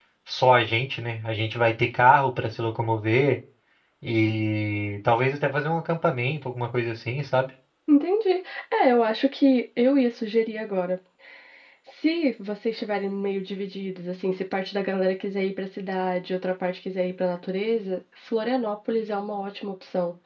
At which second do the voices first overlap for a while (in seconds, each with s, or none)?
none